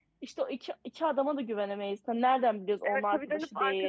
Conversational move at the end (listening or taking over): taking over